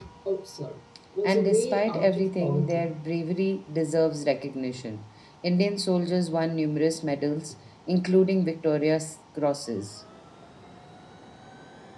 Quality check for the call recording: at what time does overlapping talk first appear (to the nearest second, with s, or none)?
1 s